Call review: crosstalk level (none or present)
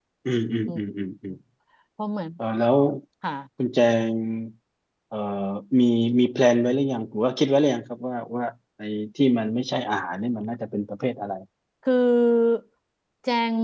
none